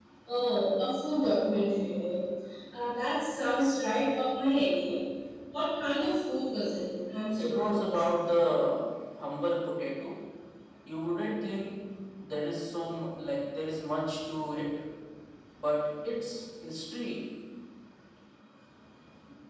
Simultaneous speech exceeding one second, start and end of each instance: 7.4-8.6

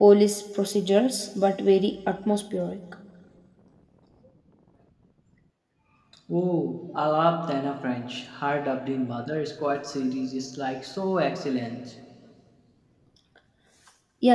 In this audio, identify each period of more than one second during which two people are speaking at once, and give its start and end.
none

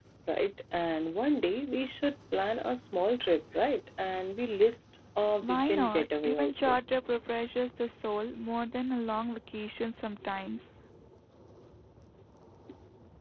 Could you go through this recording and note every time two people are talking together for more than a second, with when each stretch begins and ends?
5.4-6.8

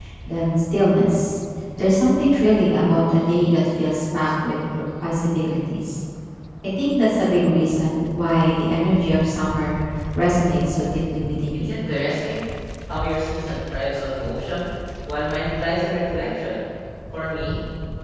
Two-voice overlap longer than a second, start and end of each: none

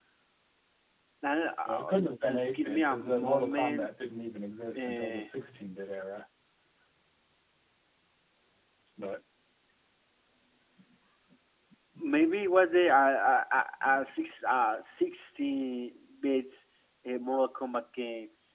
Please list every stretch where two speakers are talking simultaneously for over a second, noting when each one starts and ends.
1.6-3.9

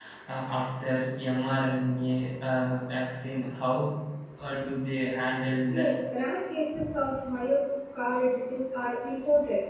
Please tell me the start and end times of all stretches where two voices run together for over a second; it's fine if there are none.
none

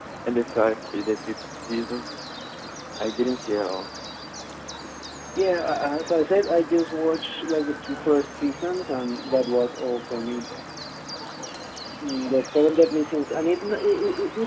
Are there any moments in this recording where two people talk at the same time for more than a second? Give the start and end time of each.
none

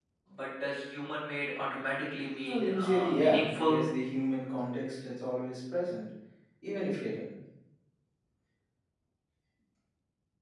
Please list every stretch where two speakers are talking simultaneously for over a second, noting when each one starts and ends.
2.5-3.8

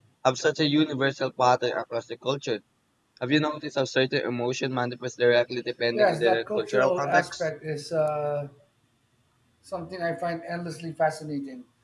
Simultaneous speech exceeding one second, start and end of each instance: 5.9-7.4

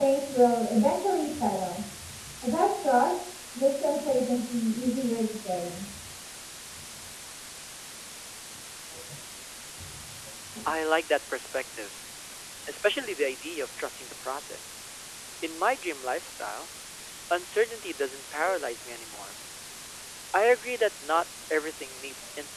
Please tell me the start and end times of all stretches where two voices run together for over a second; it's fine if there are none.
none

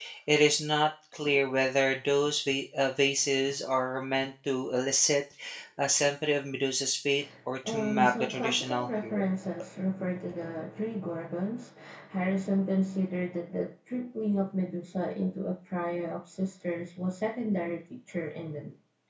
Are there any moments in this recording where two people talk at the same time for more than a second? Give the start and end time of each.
7.7-9.2

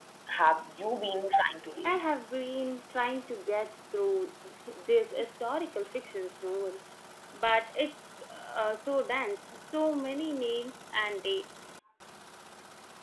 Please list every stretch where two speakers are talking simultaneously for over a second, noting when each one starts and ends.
none

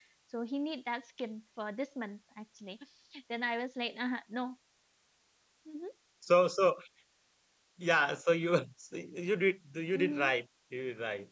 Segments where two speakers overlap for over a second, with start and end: none

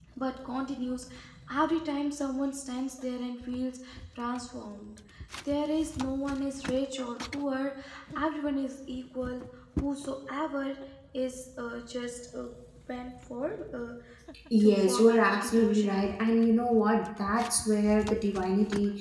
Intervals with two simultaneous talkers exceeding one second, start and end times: 14.6-16.2

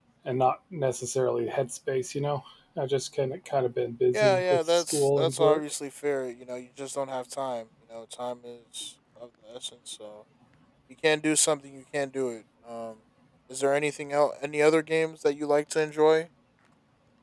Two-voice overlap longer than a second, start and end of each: 4.1-5.6

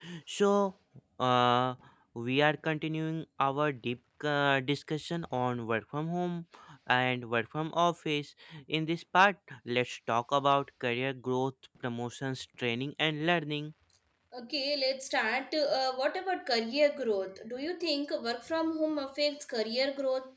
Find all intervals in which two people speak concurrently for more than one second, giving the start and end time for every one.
none

